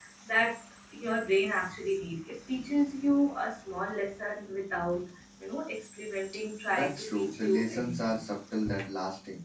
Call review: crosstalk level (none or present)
present